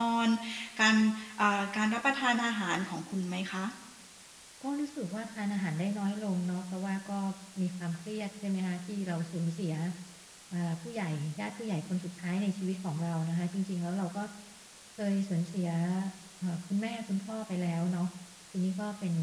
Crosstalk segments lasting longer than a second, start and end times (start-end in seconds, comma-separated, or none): none